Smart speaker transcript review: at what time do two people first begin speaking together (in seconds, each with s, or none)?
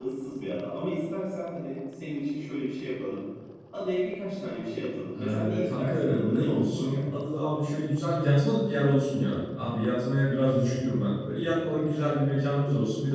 5.1 s